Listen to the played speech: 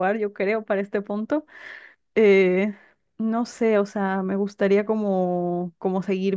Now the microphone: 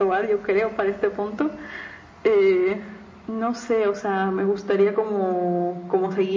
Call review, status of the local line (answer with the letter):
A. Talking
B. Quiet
B